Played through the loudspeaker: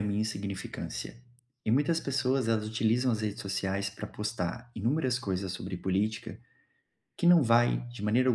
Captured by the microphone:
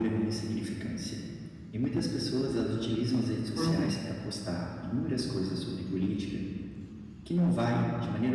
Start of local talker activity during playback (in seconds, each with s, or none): 3.5 s